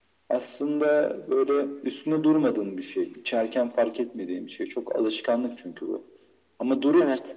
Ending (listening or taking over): listening